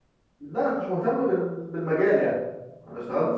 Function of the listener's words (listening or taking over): taking over